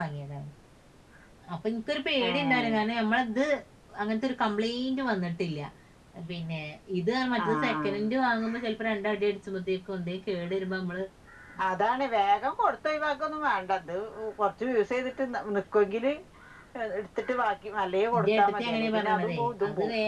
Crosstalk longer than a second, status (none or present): present